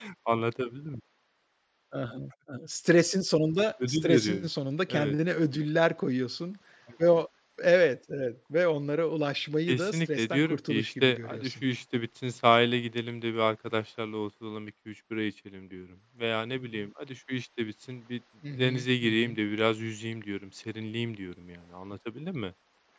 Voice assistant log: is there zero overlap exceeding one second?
No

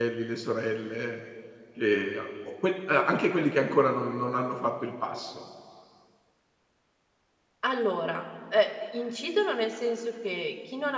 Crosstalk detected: No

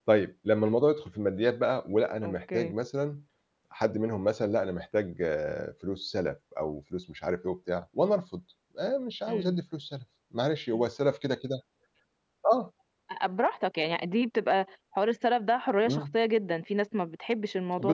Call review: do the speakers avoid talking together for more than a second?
Yes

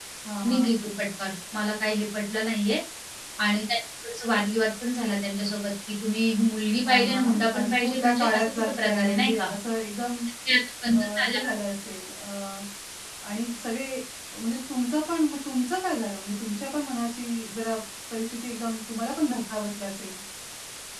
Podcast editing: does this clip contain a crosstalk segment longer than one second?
Yes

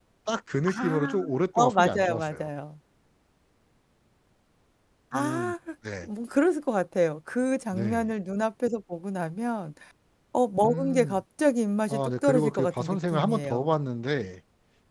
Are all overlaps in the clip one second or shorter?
No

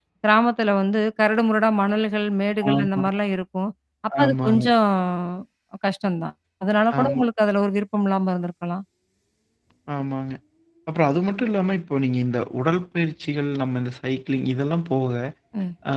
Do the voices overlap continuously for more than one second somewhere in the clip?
No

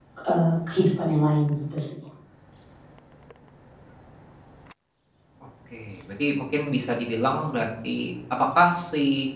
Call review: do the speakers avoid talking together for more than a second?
Yes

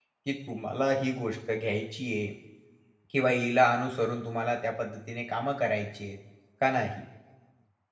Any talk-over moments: No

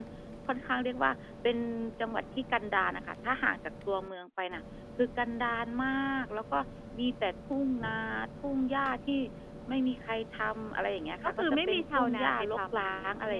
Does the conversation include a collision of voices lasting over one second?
Yes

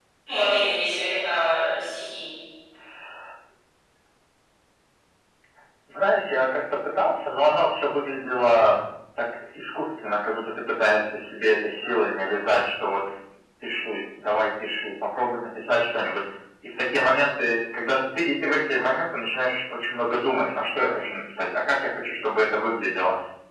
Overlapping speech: No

